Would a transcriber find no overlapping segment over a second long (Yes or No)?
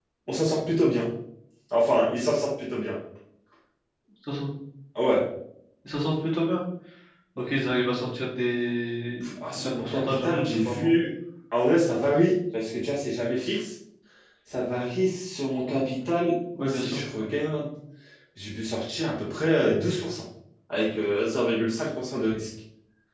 No